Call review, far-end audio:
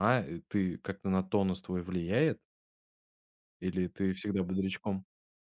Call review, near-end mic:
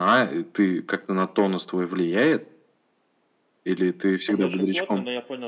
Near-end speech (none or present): present